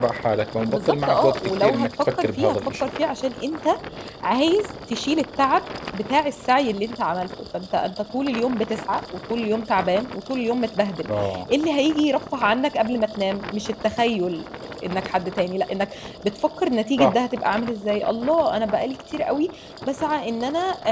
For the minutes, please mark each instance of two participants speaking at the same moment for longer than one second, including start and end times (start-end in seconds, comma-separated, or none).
0.7-2.9